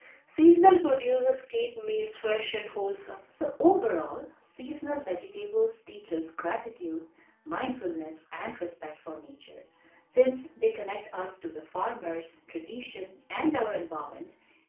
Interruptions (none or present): none